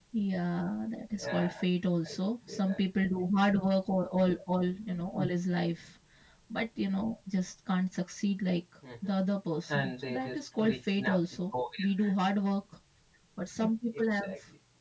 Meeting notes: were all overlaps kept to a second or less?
No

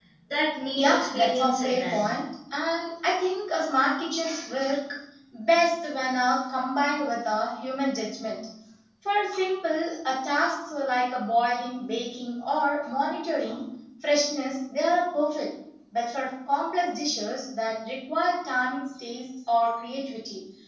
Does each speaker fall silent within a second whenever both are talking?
No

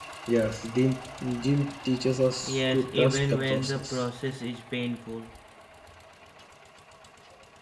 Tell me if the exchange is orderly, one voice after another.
No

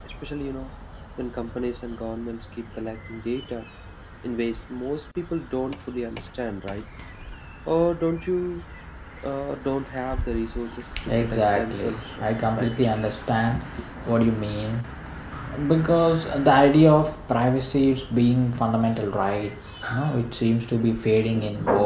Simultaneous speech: Yes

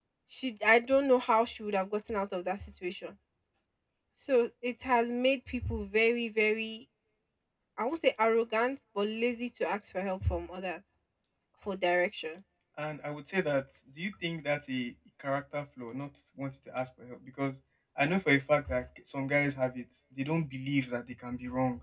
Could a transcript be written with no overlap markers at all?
Yes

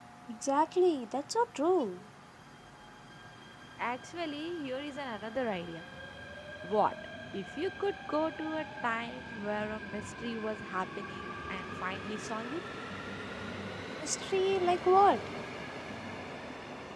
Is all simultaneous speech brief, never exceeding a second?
Yes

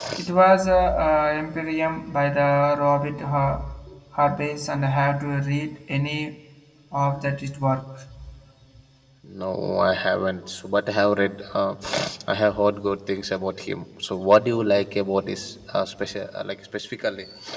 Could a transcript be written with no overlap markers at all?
Yes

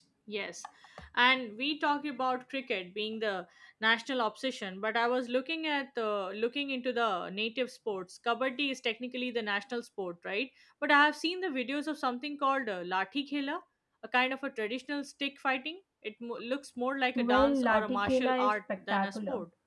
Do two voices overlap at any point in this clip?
Yes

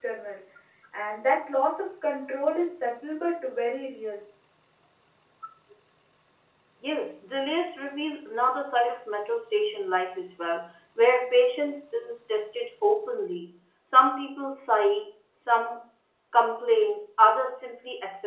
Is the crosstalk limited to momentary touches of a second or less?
Yes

